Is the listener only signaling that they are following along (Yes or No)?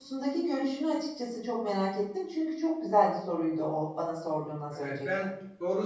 No